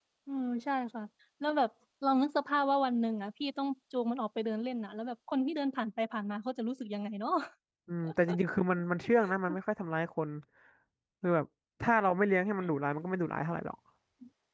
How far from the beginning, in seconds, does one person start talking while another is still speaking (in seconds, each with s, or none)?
none